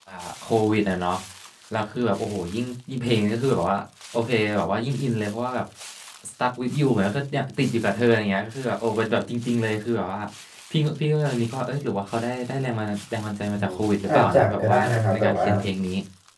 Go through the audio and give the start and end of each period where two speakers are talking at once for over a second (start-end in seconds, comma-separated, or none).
14.1-15.5